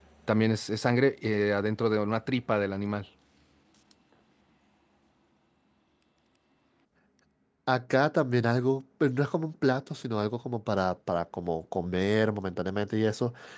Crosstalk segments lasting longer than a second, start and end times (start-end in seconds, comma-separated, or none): none